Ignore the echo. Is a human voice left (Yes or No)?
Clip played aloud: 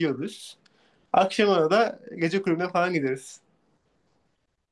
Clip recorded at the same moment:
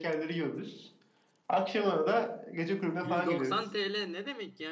Yes